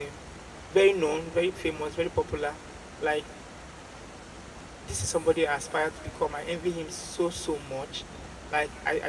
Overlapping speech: No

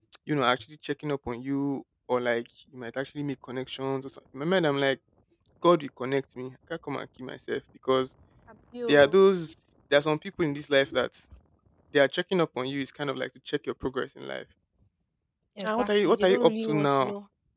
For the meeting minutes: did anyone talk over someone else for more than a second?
Yes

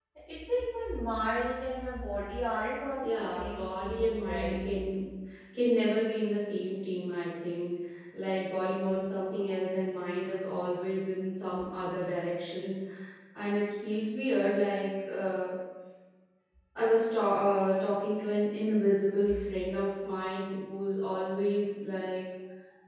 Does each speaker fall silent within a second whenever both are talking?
No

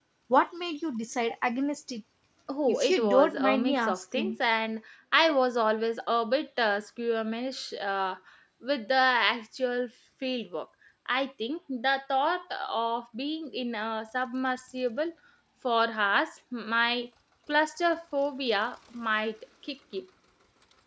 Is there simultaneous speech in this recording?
Yes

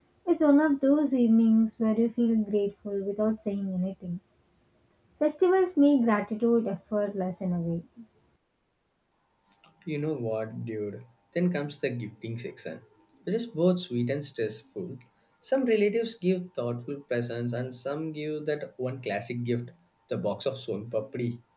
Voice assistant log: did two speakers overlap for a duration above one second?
No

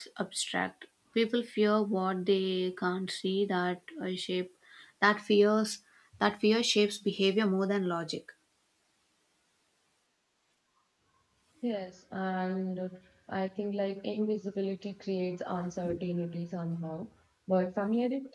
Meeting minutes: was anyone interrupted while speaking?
No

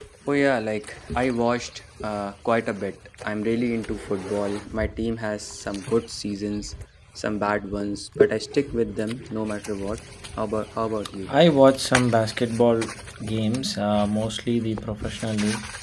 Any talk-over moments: No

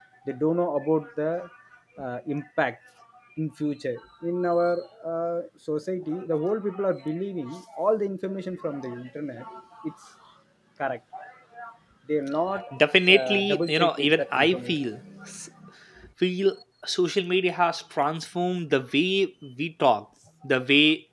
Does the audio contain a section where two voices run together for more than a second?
Yes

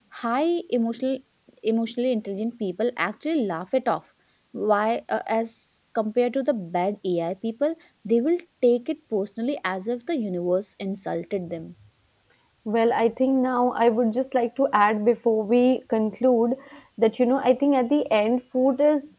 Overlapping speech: No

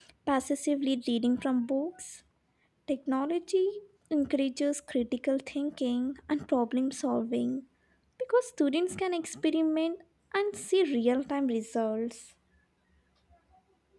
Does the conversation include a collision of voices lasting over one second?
No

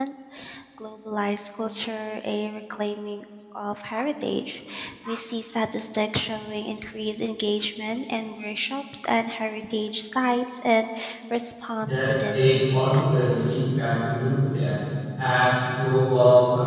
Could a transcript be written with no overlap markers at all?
No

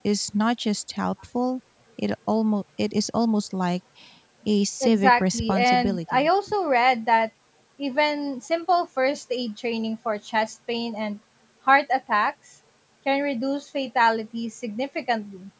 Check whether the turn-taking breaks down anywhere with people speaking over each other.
Yes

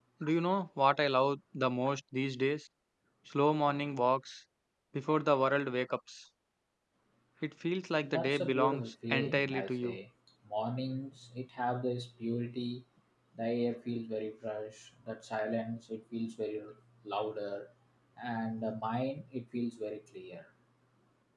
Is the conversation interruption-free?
No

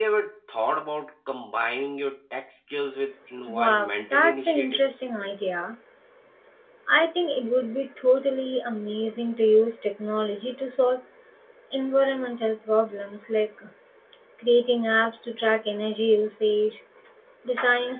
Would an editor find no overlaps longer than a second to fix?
No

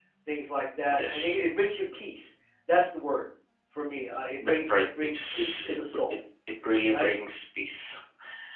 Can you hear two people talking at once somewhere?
Yes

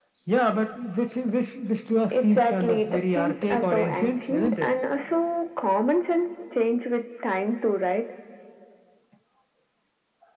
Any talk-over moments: Yes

